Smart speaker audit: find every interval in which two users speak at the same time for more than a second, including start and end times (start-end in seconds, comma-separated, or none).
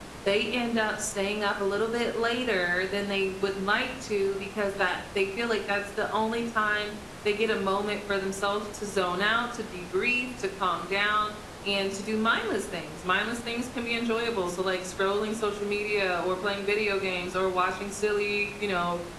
none